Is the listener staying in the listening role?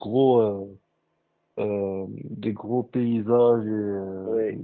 Yes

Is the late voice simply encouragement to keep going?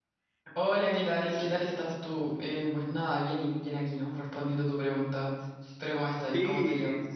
No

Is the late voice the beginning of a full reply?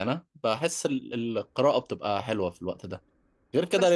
No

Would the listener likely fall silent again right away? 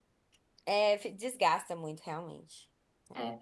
No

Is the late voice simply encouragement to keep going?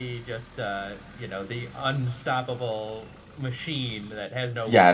No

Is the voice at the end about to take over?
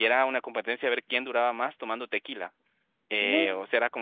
No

